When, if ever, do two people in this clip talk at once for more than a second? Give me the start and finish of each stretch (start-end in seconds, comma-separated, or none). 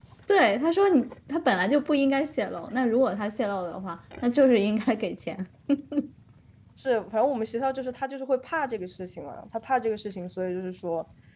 none